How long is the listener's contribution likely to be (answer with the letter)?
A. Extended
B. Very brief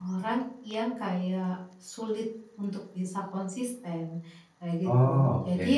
B